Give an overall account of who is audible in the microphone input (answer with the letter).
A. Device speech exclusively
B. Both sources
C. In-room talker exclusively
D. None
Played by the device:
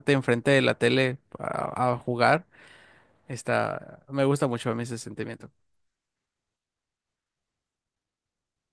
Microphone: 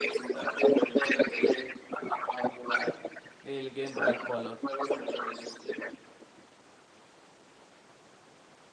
B